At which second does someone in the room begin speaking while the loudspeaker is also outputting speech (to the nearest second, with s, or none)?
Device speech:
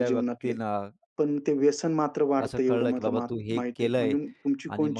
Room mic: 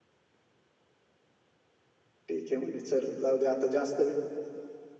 2 s